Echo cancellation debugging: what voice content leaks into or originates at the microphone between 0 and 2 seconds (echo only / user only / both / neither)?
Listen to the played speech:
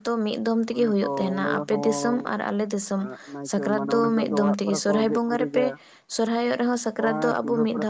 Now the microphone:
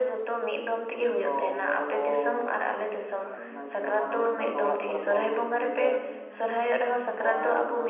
echo only